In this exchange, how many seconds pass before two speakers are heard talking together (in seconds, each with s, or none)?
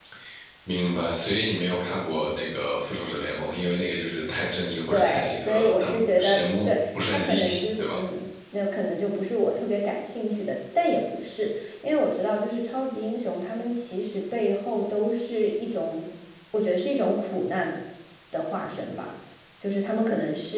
4.9 s